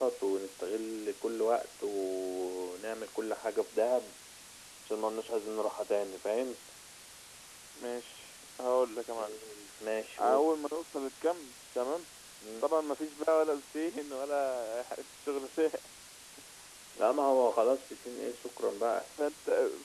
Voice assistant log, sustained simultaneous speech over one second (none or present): none